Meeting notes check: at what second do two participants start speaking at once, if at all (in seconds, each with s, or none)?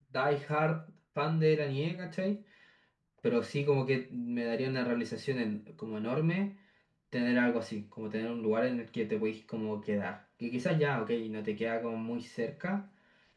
none